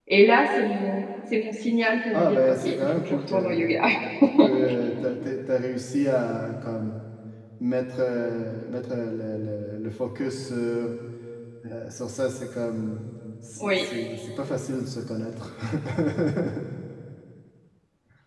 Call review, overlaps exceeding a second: present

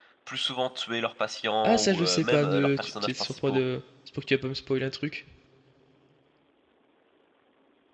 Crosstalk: present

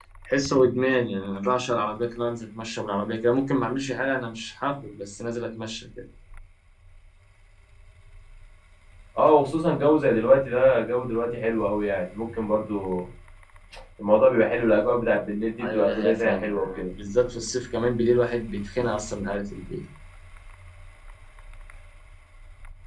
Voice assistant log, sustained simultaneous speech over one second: present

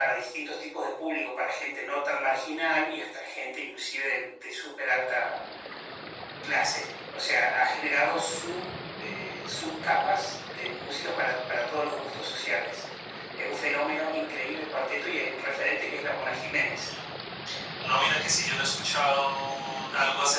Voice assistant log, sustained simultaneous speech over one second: none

